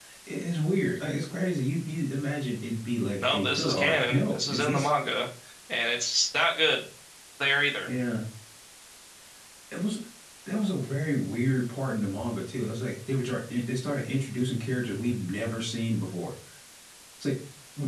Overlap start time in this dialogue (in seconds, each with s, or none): 3.2 s